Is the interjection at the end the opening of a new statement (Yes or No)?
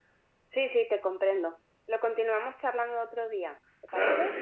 Yes